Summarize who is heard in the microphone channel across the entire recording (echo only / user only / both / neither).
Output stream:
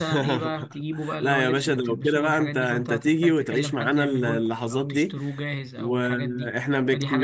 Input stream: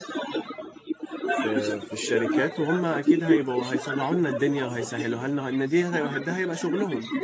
both